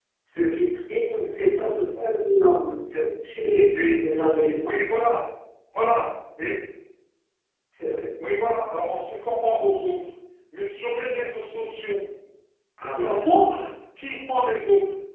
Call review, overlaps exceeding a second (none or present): none